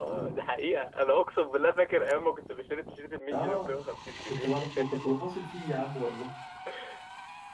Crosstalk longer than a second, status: none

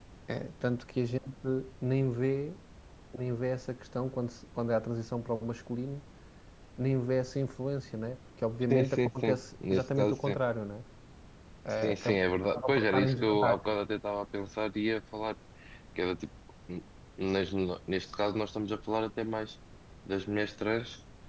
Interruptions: present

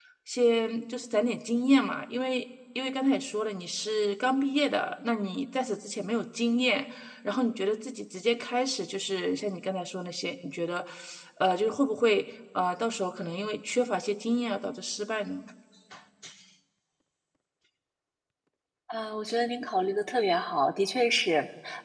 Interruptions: none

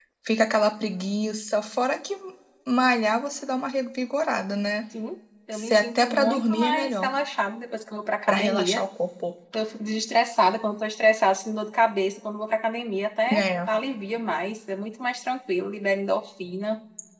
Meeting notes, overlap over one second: present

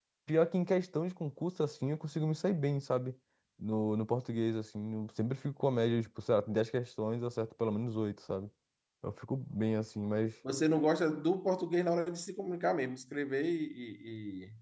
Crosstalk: none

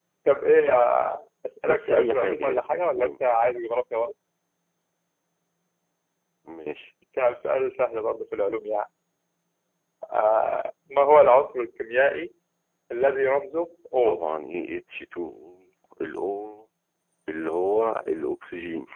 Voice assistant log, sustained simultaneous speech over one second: present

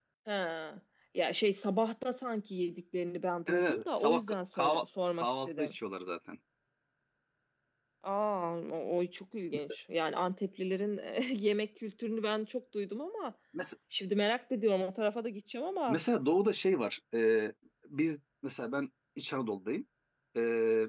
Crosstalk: present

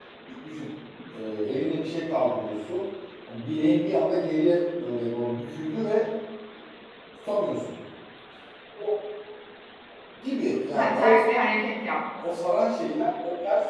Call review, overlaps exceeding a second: none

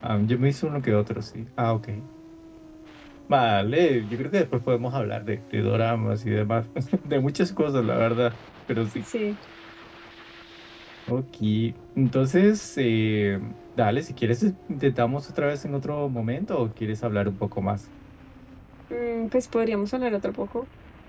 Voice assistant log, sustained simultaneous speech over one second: none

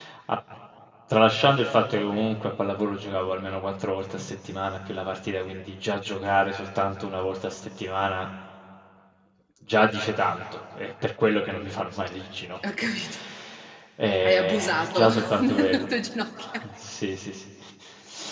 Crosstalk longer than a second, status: present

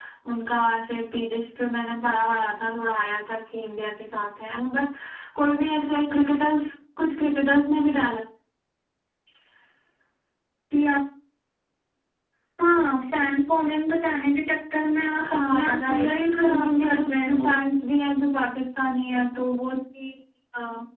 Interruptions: present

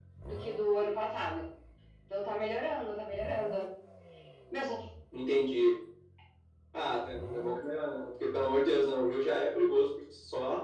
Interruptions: none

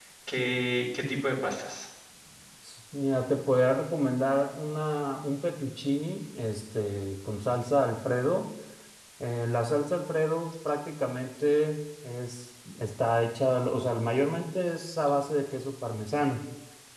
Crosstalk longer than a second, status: none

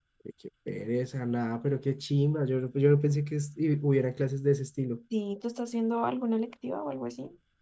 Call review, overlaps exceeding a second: none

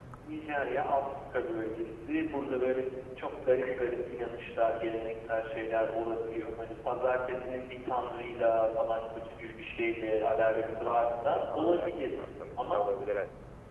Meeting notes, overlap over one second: present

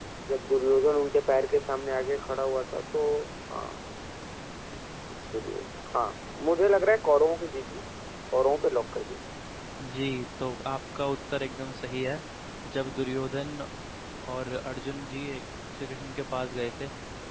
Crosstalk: none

